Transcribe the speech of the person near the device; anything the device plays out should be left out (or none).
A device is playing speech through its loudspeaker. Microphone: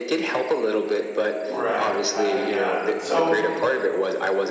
Right, I, uh so